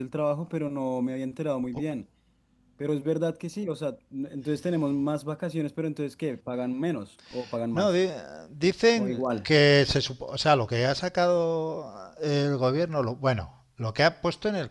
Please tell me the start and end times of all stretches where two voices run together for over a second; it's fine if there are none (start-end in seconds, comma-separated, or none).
none